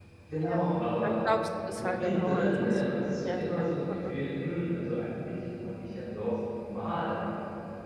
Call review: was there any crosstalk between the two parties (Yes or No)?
Yes